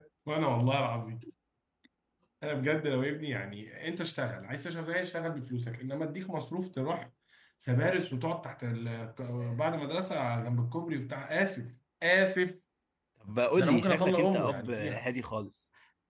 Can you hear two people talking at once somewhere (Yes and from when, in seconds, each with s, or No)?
Yes, from 13.6 s